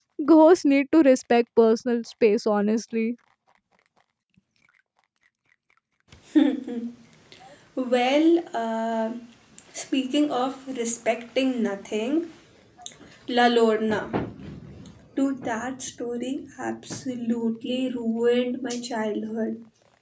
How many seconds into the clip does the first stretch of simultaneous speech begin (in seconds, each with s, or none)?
none